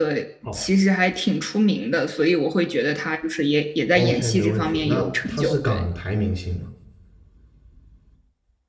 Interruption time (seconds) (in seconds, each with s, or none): 3.9 s